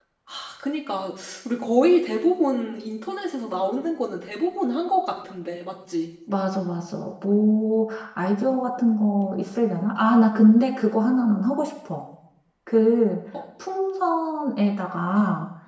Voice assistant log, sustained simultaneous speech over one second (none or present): none